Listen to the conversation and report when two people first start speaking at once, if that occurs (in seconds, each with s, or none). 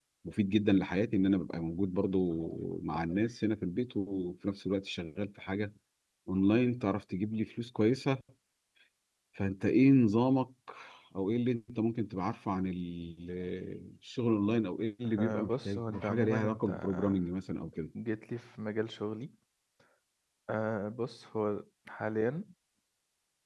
15.2 s